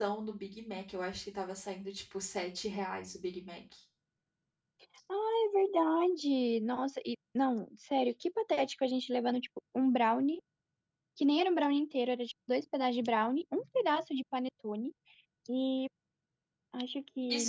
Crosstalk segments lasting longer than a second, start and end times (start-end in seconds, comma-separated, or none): none